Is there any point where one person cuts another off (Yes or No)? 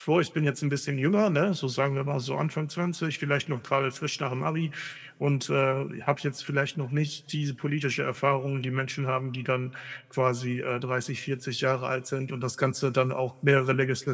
No